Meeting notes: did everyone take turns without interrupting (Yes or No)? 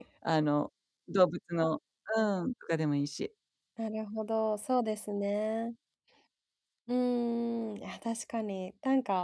Yes